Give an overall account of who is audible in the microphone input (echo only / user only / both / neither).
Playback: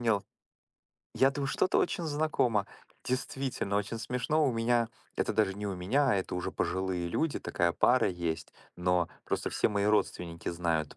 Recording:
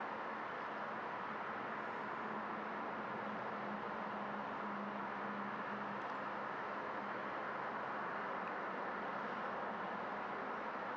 neither